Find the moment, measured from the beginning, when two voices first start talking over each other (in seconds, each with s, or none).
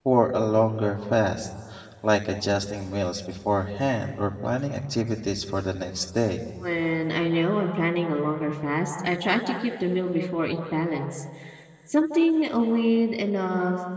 none